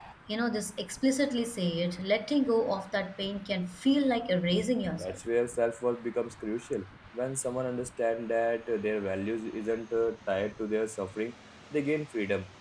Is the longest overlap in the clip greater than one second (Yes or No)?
No